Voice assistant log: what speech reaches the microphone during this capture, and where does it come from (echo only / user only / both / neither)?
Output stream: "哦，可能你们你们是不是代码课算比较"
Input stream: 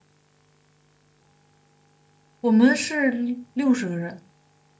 user only